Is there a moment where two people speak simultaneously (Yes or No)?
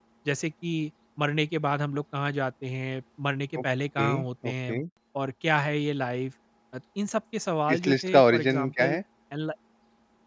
Yes